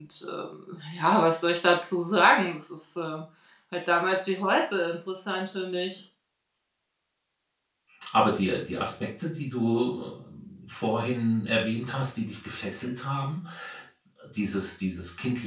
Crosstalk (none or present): none